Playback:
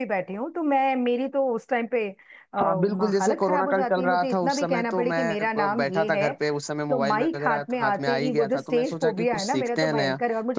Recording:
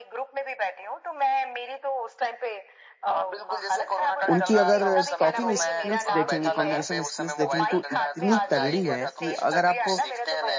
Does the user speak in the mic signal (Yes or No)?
Yes